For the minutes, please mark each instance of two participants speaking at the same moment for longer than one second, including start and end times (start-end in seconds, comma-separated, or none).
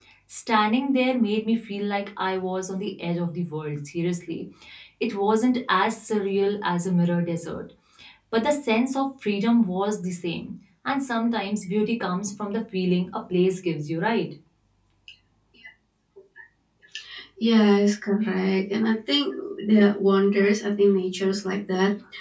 none